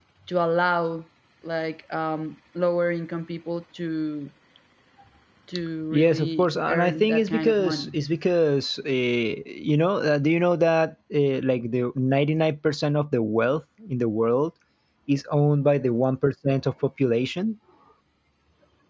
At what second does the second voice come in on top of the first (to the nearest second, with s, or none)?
6 s